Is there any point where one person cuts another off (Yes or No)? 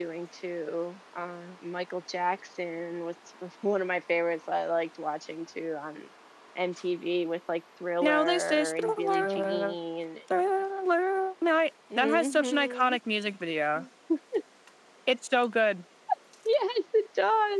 Yes